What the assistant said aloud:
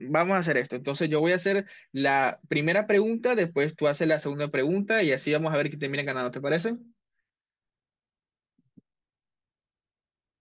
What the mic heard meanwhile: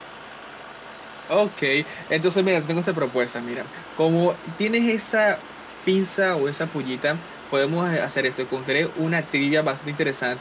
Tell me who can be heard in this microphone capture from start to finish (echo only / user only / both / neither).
user only